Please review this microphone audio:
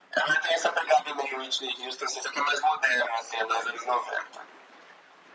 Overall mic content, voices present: echo only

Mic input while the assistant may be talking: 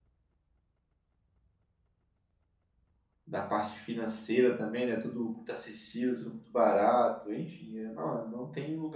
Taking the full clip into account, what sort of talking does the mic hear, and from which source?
user only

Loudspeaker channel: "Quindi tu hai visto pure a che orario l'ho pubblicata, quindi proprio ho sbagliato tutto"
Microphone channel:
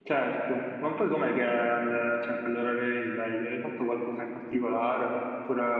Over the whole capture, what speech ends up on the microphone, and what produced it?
user only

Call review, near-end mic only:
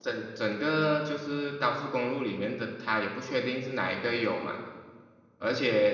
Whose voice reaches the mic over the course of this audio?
user only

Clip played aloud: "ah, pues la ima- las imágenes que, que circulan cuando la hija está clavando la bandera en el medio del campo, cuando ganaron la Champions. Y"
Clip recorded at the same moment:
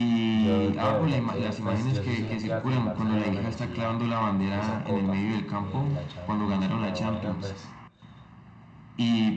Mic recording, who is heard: both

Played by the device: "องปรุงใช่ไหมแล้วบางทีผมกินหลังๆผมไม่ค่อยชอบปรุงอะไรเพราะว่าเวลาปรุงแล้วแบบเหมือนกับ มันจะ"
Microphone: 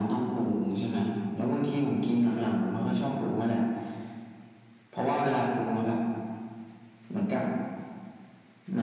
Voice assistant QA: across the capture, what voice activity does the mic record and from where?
echo only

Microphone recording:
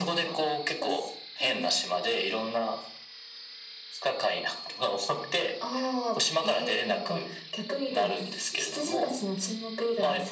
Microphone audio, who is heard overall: echo only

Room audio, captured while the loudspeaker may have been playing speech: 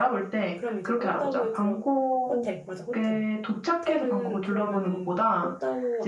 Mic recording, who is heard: both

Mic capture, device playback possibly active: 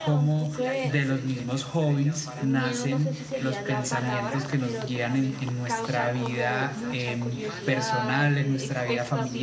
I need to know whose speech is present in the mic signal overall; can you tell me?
both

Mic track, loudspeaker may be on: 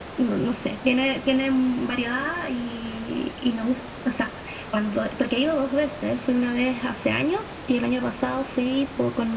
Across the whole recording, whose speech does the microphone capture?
echo only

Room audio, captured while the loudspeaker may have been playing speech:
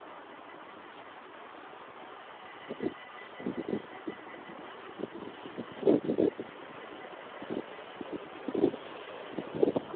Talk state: neither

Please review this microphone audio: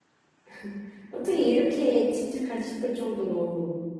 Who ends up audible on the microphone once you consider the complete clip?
user only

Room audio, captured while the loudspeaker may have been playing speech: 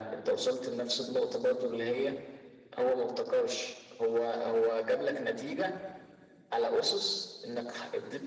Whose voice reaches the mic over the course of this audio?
echo only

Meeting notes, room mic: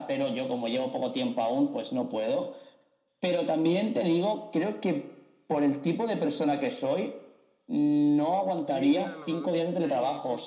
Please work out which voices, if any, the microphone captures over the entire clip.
both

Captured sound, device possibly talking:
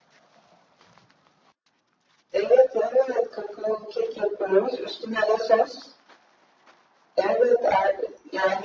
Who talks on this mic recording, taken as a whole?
echo only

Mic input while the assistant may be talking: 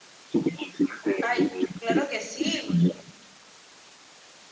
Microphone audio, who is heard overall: both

